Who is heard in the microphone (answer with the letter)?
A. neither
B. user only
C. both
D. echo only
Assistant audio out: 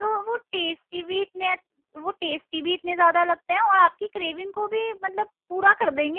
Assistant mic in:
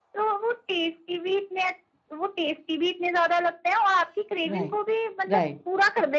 C